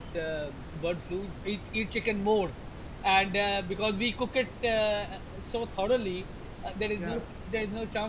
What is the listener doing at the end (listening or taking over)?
listening